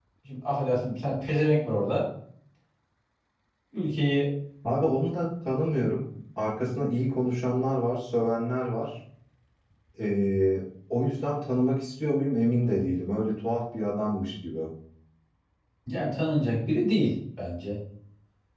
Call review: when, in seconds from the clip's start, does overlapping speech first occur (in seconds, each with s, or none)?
none